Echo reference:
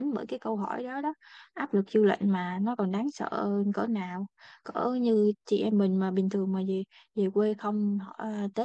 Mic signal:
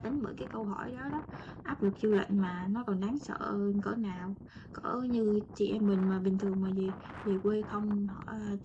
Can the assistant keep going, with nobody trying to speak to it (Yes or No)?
Yes